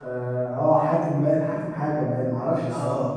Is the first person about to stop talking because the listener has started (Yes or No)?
Yes